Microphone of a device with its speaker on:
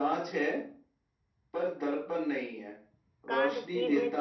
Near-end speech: present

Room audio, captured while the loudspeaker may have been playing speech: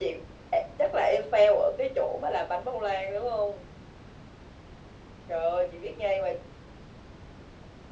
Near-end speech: none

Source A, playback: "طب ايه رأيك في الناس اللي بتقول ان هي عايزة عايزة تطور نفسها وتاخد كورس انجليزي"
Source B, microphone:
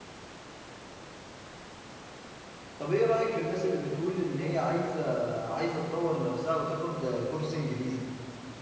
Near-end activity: none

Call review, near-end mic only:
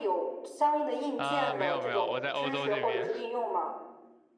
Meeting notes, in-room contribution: present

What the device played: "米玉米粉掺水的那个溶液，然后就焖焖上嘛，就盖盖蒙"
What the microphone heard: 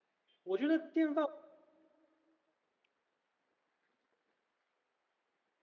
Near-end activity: present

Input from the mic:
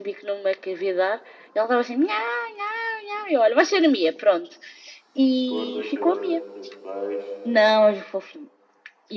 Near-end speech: present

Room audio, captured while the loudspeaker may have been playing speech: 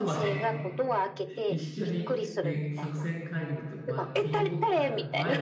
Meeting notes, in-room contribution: present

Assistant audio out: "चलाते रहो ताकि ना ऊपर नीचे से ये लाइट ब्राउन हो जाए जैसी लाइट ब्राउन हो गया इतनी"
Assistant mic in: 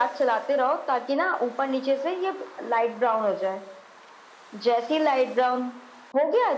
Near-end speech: none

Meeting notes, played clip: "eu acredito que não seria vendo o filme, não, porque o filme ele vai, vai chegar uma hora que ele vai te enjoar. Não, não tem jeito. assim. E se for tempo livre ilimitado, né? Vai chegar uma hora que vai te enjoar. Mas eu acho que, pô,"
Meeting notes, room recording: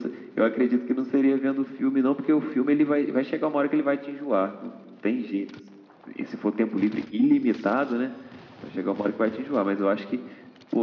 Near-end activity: none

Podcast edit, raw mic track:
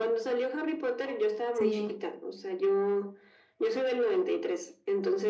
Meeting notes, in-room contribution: present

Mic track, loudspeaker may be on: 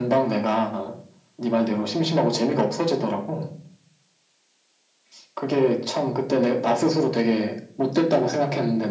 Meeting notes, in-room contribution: none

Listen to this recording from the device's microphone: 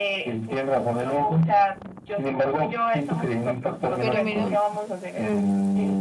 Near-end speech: present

